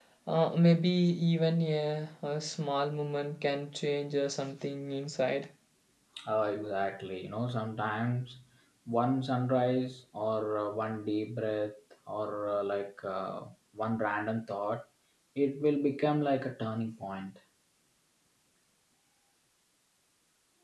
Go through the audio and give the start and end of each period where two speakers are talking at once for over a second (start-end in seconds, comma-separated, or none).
none